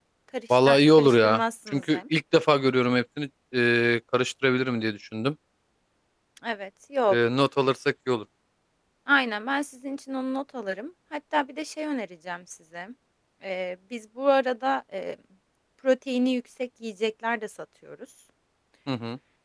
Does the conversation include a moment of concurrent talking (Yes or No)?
Yes